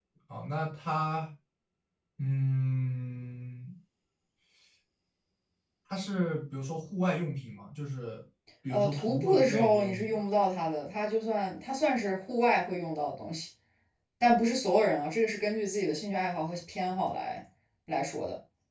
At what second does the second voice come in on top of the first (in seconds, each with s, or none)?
8.7 s